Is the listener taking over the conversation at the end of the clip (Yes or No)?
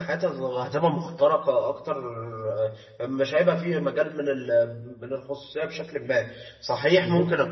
No